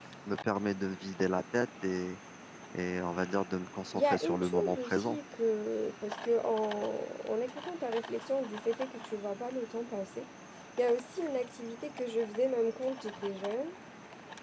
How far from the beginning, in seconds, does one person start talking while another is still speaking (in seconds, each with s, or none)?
3.9 s